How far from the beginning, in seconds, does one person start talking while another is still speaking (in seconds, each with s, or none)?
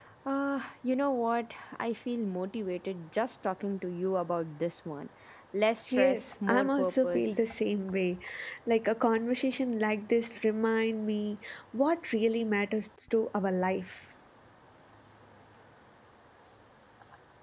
5.9 s